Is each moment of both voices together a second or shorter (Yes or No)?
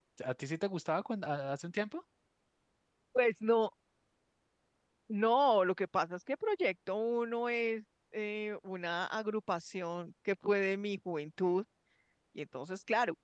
Yes